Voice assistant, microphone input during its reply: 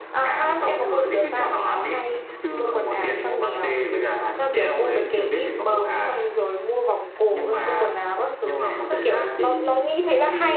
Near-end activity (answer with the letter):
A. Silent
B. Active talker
B